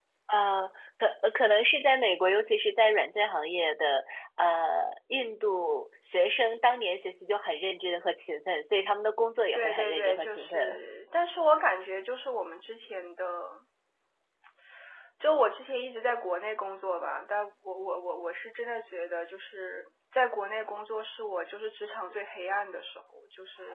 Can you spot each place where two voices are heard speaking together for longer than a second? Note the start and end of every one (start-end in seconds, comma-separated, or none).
9.5-10.8